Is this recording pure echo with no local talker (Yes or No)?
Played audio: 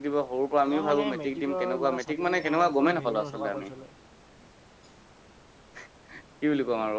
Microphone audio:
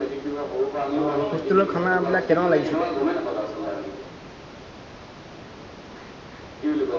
No